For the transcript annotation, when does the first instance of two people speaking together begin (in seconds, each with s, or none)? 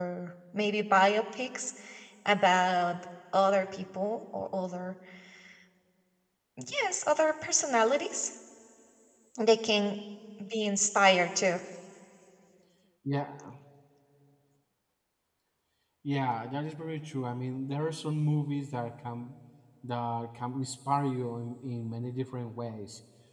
none